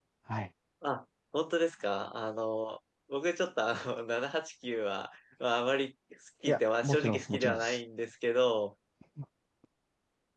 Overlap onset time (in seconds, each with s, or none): 6.5 s